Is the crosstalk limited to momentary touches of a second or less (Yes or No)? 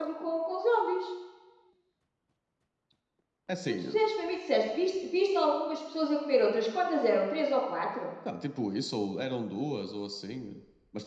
Yes